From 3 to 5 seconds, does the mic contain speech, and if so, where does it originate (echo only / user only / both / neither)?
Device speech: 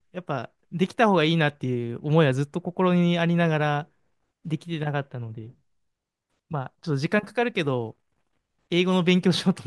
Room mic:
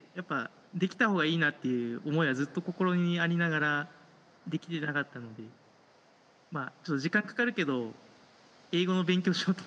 echo only